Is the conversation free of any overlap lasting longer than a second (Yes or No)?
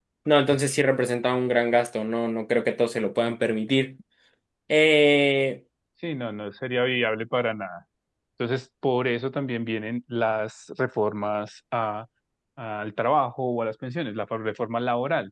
Yes